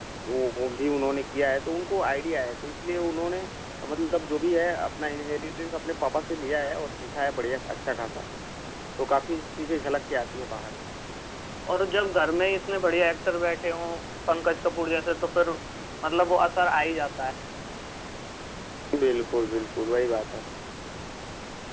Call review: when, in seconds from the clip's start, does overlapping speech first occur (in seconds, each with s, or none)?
none